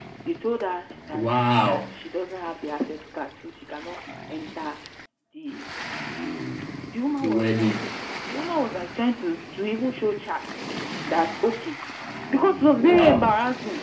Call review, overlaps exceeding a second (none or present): none